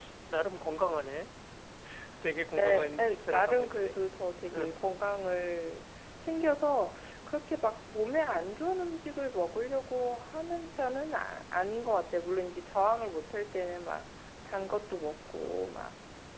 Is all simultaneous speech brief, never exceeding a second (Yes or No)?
No